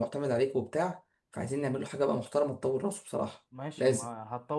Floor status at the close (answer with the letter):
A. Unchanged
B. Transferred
B